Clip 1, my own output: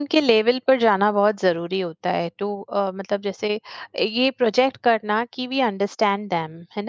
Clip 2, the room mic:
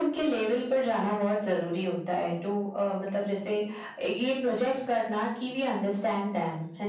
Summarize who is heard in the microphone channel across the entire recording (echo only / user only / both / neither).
echo only